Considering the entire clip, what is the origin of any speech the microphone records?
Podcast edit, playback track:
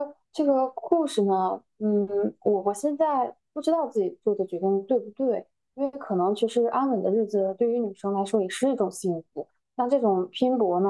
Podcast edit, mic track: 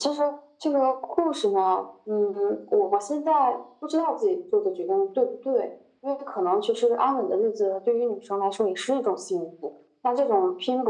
echo only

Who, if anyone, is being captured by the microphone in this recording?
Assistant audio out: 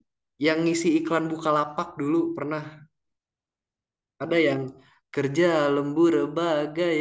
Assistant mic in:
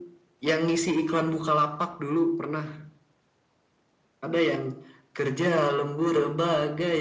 echo only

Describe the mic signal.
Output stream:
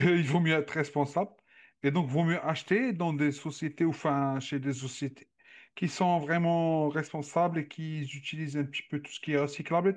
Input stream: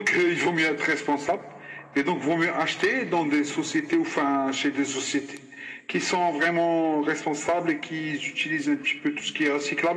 echo only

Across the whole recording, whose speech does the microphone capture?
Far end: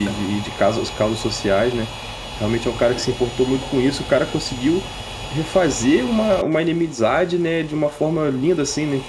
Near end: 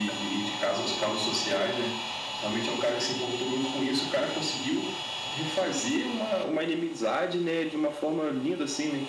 both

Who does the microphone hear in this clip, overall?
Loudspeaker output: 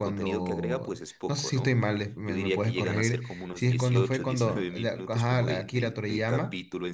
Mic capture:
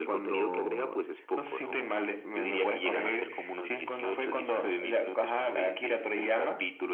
echo only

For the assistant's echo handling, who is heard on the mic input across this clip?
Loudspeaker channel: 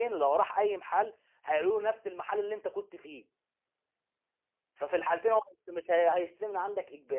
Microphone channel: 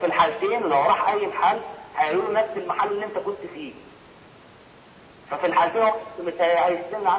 echo only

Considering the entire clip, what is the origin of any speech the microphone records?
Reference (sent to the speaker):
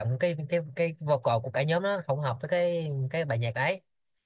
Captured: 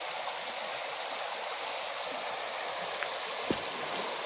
neither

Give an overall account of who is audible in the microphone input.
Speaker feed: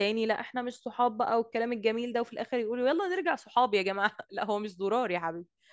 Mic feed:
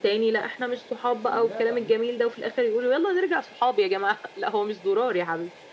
both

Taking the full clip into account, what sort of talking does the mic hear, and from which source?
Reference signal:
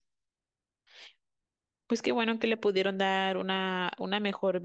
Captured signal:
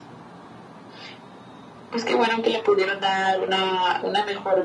echo only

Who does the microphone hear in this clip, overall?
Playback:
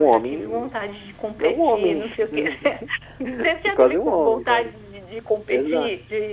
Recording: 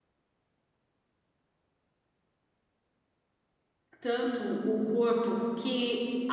user only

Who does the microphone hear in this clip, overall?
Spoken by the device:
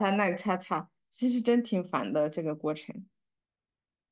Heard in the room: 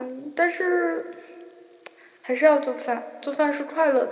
user only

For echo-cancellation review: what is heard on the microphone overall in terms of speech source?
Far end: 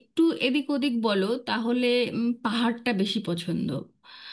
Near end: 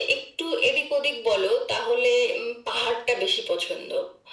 echo only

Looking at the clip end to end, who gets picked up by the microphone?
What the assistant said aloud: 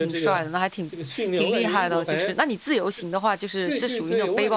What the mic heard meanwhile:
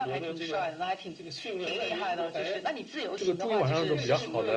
both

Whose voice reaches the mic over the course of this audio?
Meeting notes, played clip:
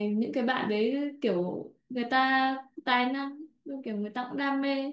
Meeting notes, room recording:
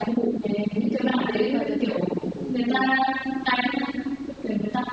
both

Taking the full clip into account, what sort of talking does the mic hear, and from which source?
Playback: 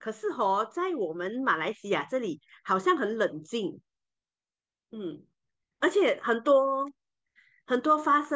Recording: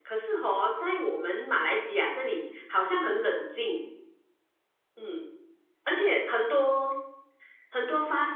echo only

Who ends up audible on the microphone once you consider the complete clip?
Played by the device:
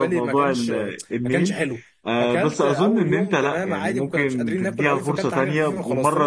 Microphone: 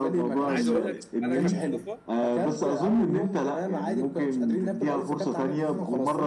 both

